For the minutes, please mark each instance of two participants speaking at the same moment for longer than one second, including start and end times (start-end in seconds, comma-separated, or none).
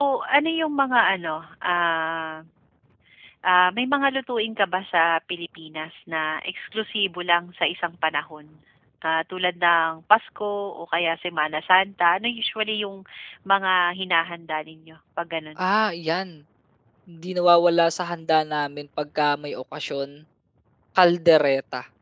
none